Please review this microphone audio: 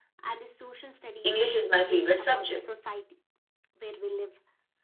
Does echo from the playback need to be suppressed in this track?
Yes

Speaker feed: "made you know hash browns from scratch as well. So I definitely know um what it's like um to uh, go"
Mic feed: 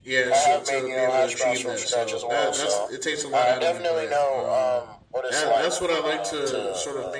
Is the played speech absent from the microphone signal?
No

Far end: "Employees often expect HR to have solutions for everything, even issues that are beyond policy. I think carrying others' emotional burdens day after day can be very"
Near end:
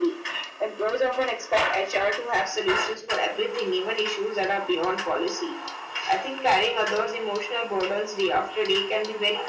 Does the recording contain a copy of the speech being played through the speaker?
Yes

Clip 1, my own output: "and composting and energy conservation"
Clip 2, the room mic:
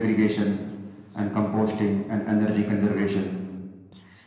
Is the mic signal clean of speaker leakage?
No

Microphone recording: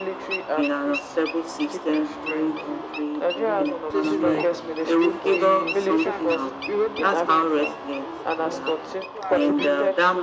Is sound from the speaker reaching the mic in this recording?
Yes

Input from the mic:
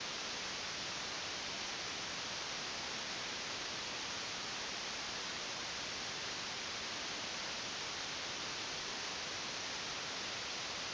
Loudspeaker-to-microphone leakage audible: No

